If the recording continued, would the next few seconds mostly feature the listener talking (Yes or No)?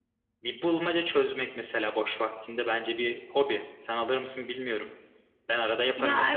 Yes